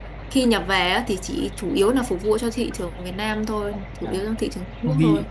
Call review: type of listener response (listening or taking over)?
taking over